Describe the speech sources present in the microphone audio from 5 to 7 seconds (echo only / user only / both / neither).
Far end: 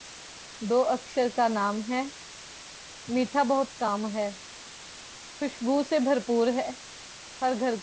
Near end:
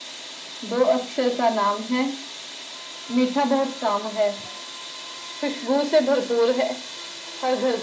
echo only